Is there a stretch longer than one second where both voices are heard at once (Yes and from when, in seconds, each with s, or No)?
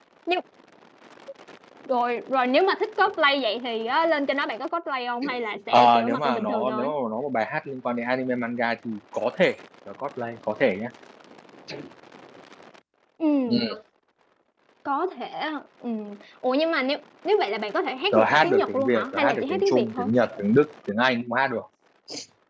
Yes, from 5.7 s